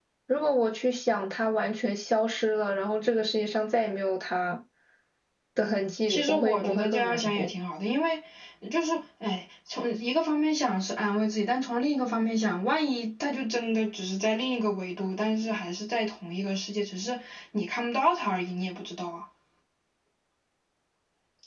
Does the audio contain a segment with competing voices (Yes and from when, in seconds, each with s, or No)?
Yes, from 6.1 s